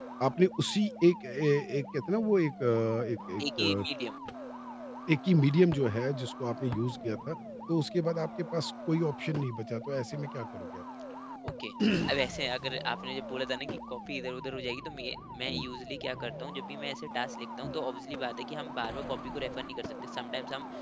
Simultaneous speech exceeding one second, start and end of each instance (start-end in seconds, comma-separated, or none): none